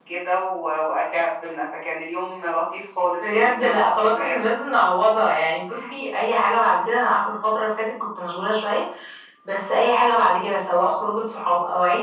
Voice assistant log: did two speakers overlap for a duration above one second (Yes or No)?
Yes